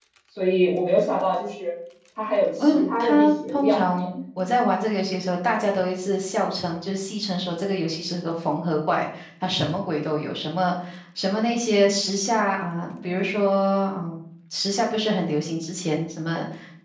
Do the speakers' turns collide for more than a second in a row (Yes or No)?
Yes